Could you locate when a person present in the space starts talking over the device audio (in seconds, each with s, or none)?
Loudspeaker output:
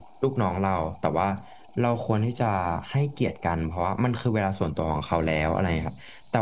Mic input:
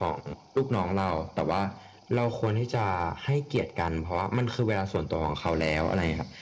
none